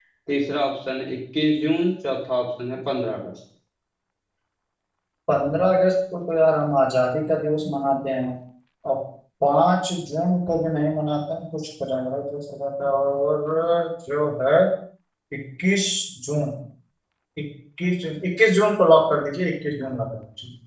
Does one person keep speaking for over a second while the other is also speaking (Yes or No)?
No